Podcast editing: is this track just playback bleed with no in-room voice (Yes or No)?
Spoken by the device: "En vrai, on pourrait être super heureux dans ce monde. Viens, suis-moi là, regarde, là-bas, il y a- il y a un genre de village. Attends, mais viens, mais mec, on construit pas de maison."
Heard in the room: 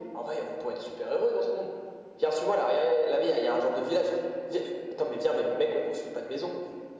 Yes